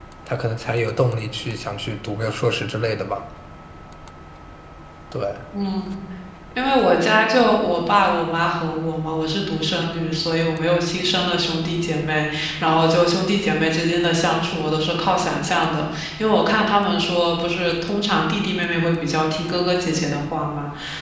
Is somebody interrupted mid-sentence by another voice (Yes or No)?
No